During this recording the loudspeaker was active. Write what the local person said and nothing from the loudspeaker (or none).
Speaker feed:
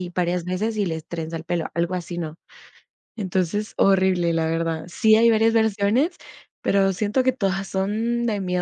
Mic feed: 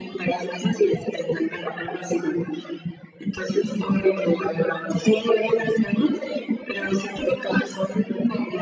none